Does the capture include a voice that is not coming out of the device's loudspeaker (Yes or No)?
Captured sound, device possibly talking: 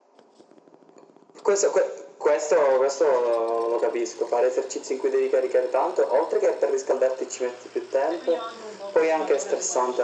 Yes